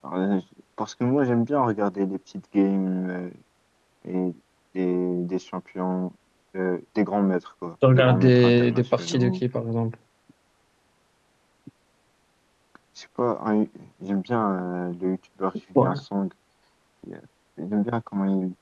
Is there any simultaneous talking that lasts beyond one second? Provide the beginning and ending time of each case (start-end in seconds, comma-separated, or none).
7.9-9.4